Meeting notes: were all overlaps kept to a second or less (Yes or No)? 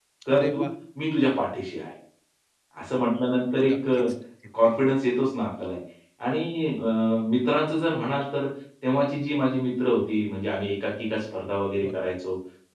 Yes